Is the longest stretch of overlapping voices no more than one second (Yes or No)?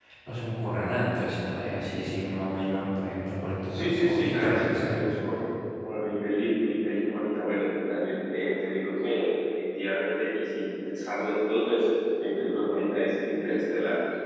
No